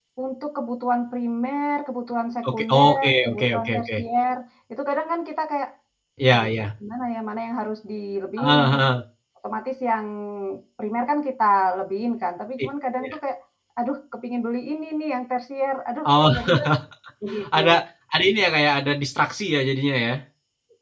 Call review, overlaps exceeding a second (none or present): present